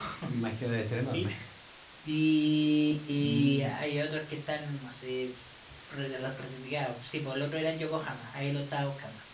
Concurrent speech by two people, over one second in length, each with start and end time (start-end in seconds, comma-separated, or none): none